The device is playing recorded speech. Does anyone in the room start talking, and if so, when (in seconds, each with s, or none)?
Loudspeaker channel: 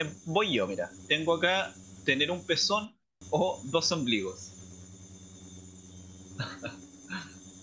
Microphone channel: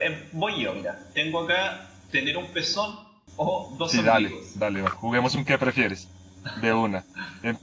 3.8 s